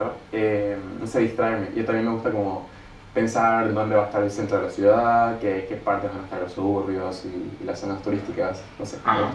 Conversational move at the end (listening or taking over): taking over